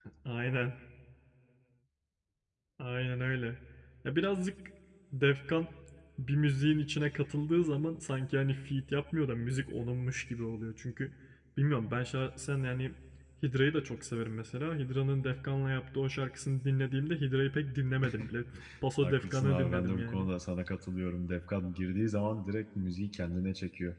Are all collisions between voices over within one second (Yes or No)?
No